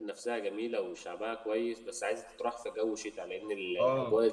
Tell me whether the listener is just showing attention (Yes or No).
No